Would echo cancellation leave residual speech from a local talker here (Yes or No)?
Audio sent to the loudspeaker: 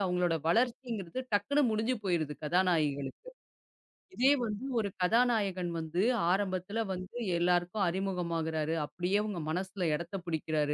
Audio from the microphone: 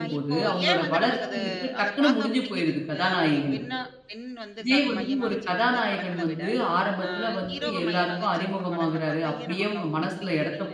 Yes